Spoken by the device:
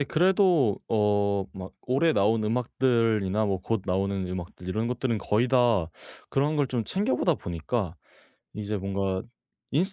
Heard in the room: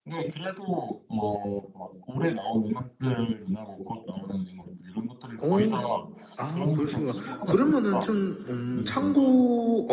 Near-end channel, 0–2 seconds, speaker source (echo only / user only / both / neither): echo only